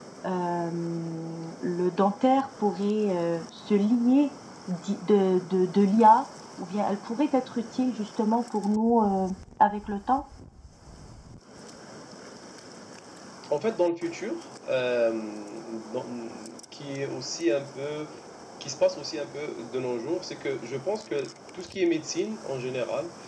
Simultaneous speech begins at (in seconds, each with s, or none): none